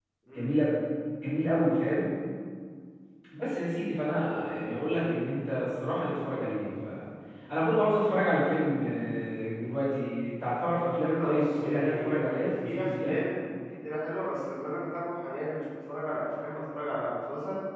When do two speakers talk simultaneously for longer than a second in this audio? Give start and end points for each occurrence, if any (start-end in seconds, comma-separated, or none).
10.8-12.1